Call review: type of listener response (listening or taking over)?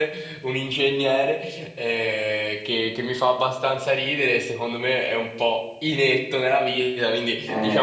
listening